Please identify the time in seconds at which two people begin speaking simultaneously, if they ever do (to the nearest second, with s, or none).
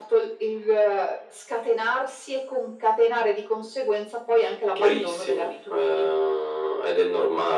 5 s